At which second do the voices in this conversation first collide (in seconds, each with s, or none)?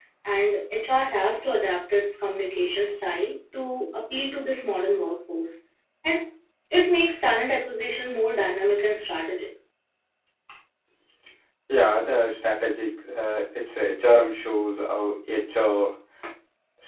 none